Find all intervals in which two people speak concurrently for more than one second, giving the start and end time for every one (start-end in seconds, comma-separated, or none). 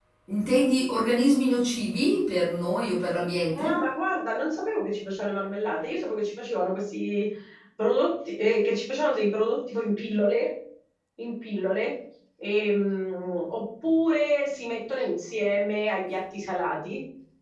none